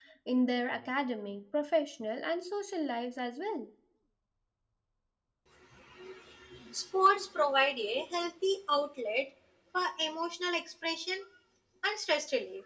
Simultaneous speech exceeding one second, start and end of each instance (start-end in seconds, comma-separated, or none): none